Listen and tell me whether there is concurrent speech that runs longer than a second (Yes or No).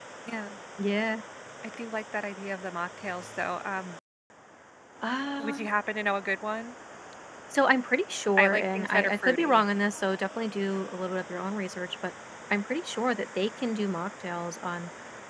Yes